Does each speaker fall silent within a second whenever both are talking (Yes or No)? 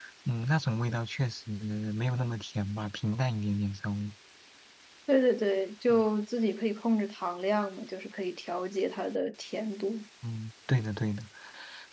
Yes